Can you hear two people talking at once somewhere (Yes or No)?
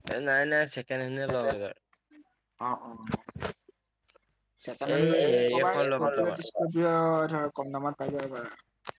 Yes